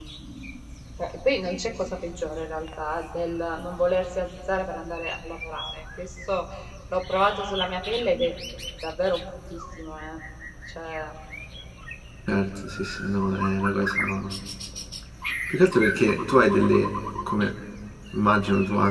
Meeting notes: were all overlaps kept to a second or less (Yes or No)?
Yes